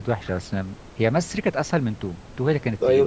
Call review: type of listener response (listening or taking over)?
taking over